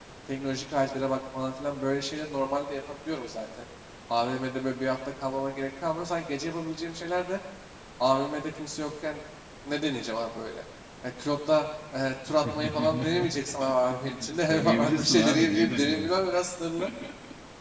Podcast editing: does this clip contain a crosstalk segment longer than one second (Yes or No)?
Yes